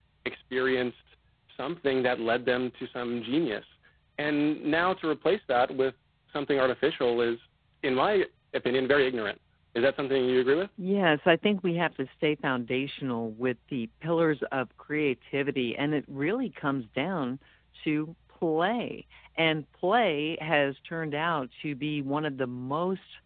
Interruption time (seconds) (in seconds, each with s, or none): none